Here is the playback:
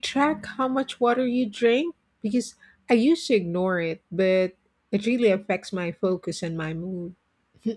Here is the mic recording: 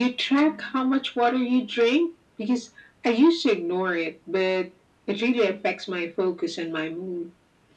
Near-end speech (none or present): none